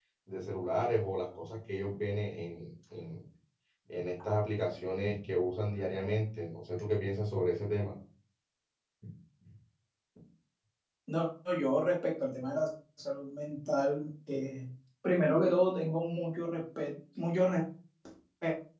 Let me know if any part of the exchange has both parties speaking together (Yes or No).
No